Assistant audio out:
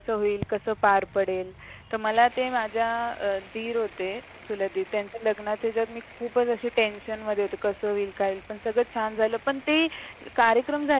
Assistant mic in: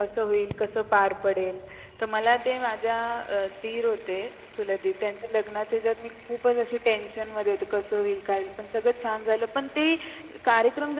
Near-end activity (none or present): none